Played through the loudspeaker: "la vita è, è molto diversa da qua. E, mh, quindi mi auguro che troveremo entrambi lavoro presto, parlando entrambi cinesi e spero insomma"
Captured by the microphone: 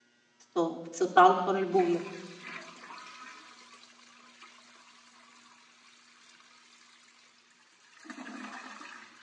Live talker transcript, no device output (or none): Sto, sto salto nel buio.